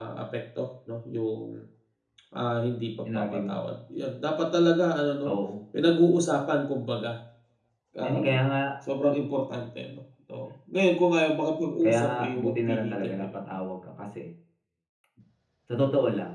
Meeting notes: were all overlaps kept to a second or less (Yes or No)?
No